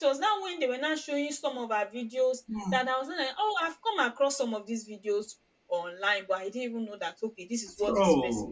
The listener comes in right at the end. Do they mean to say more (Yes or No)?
Yes